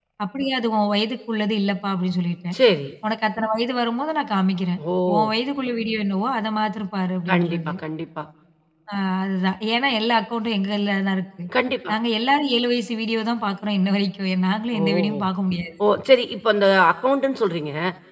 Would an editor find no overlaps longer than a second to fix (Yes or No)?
Yes